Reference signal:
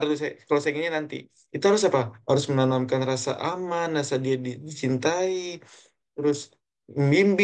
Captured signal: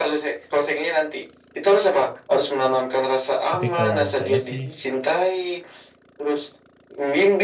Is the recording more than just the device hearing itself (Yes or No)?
Yes